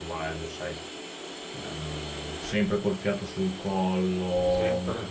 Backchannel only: Yes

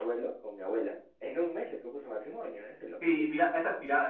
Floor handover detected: Yes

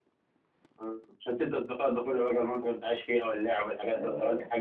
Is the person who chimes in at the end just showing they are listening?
No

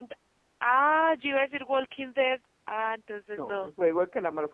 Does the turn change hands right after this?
Yes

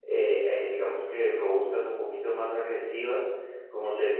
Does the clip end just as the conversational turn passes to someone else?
No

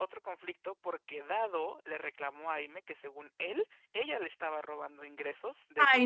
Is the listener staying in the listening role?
No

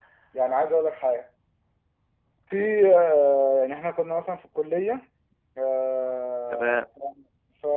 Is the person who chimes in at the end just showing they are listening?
Yes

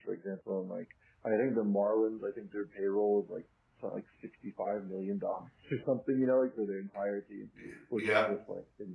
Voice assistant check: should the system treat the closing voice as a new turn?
No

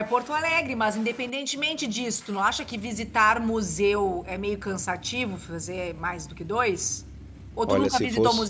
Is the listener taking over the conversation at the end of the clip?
Yes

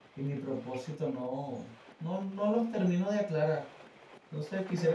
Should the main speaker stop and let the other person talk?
No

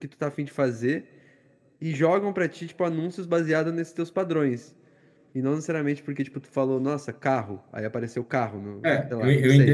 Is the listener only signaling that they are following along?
No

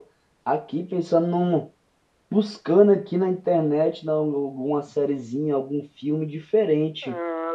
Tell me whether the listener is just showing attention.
Yes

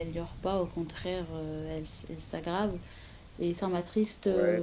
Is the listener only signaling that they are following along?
No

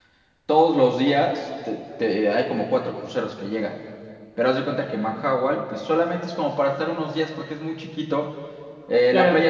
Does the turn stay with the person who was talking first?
Yes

